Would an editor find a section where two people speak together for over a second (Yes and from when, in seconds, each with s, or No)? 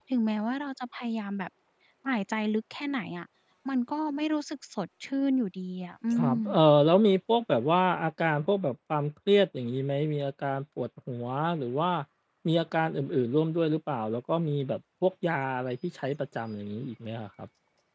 No